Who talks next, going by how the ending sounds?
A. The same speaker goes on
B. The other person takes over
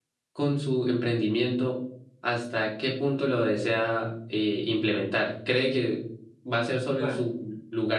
A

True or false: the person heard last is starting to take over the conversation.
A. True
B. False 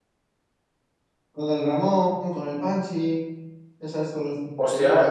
A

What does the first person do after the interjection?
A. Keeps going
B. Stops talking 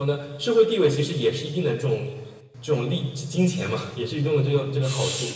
B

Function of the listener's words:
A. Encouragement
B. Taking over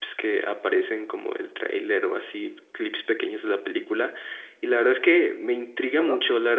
A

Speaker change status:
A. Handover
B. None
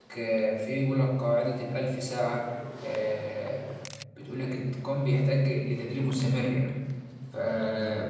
B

